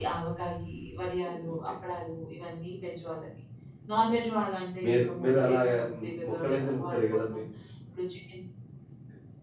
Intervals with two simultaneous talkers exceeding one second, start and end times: 4.8-7.4

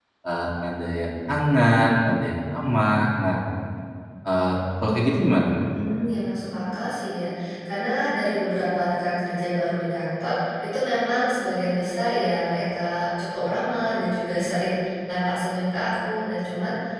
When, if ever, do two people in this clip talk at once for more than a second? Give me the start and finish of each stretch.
none

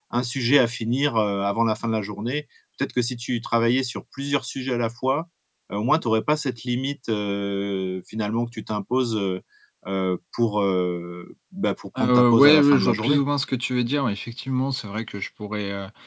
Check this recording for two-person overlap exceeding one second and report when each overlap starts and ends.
12.0-13.2

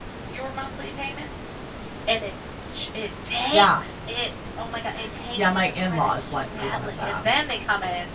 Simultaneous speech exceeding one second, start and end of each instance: 5.4-7.2

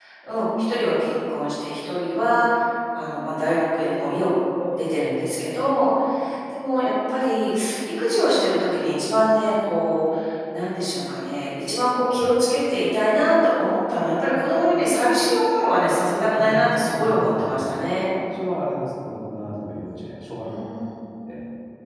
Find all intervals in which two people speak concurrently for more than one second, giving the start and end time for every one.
16.4-17.7

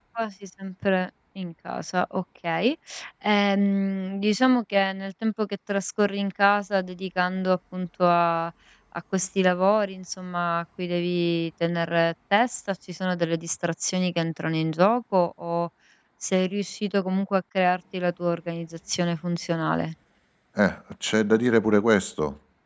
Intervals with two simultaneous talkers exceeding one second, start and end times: none

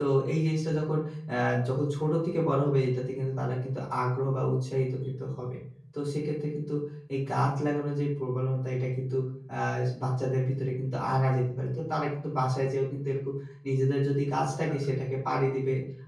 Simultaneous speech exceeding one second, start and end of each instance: none

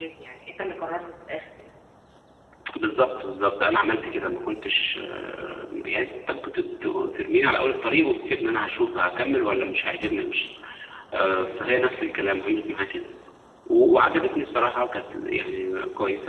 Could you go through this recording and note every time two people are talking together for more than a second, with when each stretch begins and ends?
none

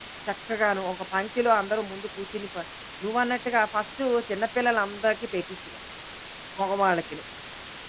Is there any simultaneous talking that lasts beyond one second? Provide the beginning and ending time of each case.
none

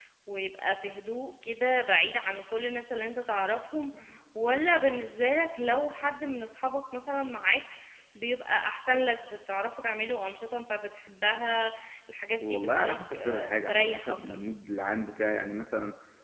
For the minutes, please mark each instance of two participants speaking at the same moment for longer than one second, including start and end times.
12.5-14.2

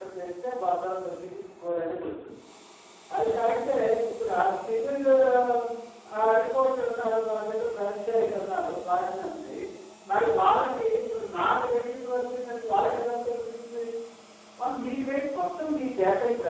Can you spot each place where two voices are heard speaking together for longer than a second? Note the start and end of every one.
none

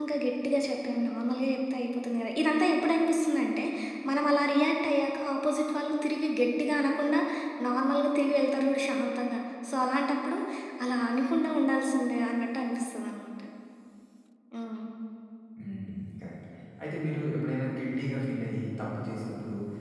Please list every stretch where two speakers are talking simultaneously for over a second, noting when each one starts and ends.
none

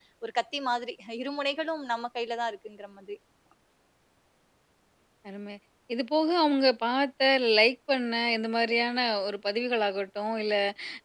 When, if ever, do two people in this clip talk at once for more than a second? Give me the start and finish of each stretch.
none

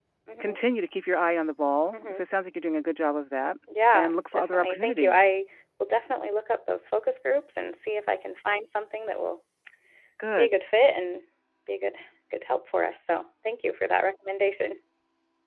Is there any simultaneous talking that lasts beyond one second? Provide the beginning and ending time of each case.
3.9-5.3

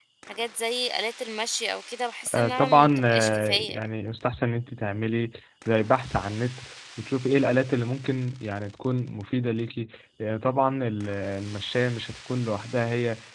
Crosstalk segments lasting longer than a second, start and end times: 2.3-3.9

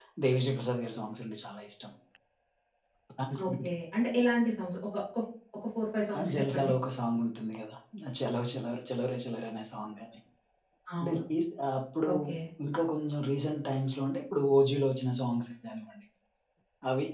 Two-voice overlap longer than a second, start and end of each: none

